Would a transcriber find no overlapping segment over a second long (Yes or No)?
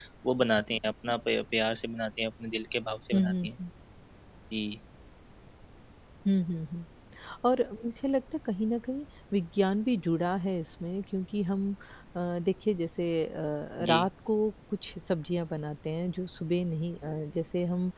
Yes